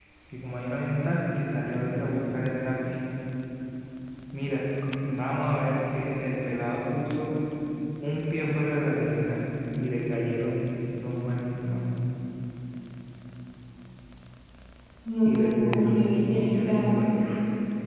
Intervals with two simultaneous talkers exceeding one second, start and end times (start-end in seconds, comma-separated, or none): 15.2-16.8